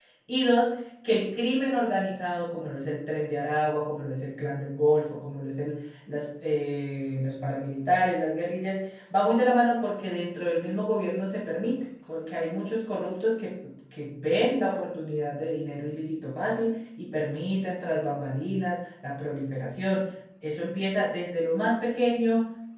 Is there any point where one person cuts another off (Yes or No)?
No